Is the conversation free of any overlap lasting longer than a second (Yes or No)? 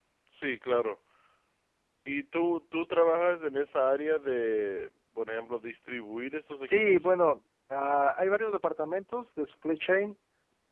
Yes